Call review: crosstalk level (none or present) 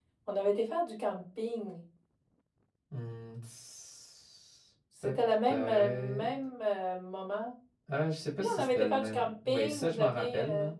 present